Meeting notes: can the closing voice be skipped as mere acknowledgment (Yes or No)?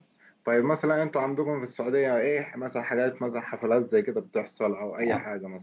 No